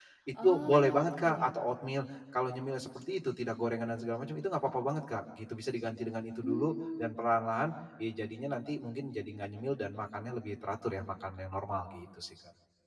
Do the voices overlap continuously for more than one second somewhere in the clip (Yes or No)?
Yes